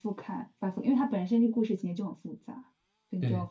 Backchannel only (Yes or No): Yes